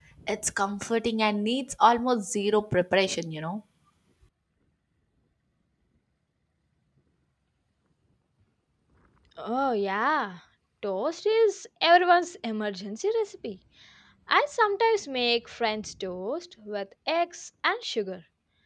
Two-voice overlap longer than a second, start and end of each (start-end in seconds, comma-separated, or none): none